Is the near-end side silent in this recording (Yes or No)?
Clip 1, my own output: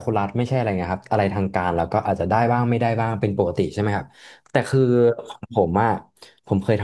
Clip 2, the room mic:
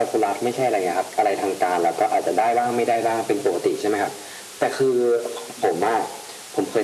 Yes